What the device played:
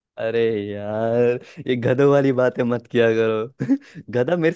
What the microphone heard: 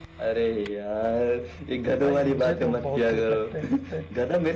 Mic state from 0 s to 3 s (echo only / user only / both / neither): both